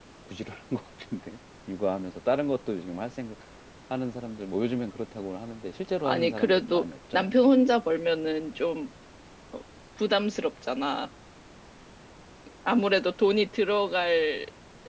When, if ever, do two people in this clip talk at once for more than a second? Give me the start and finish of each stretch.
6.0-7.3

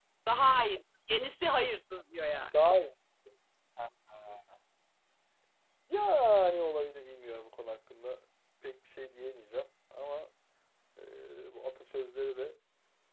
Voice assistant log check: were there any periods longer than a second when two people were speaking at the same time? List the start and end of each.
none

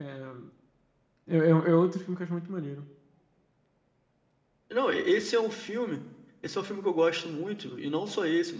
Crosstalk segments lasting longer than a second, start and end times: none

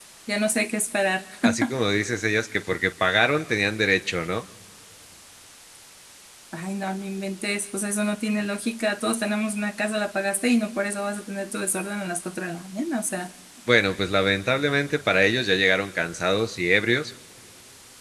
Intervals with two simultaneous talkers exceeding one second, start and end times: none

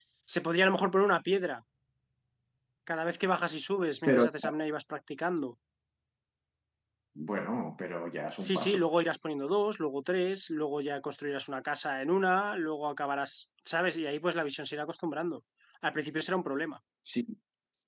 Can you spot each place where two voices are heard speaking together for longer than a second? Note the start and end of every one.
none

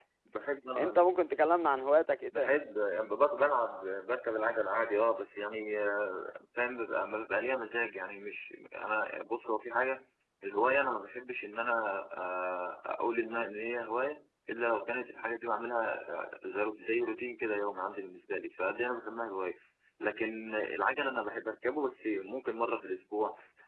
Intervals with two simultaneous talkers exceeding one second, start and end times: none

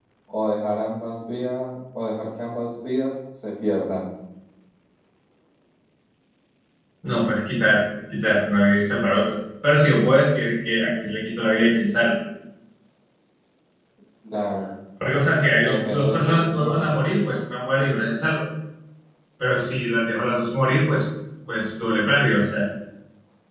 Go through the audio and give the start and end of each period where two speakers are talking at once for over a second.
15.6-17.0

